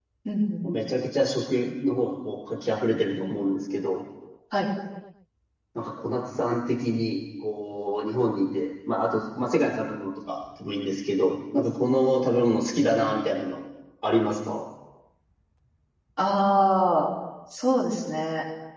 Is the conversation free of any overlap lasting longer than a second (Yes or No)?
Yes